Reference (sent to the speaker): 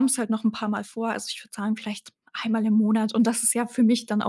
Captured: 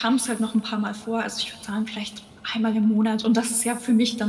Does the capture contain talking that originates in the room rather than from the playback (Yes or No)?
No